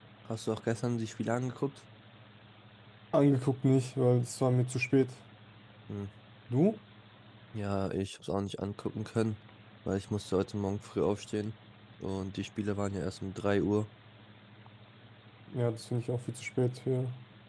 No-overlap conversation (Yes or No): Yes